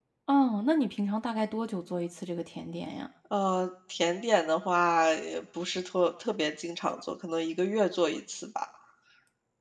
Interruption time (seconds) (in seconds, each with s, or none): none